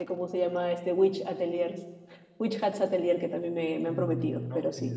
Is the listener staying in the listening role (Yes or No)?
No